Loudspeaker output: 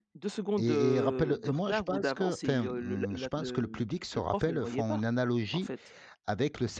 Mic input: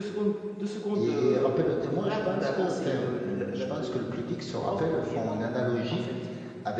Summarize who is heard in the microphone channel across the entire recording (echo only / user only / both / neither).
echo only